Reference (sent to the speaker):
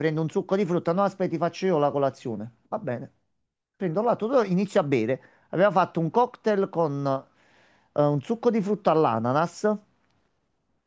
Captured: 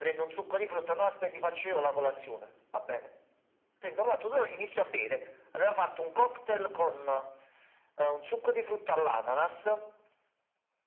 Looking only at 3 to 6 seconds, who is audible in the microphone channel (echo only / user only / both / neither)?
echo only